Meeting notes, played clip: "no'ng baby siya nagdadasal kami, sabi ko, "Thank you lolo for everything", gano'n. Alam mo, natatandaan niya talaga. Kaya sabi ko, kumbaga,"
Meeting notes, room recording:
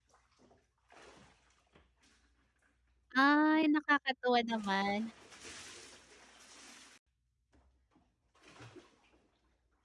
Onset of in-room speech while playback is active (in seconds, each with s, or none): 3.2 s